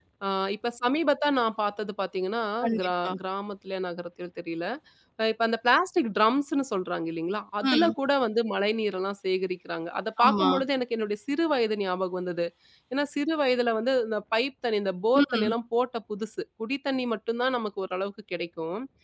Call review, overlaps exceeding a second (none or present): none